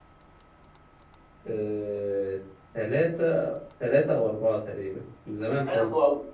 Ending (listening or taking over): taking over